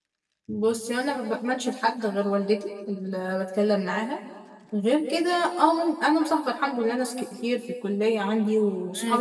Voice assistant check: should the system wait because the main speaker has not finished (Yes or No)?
No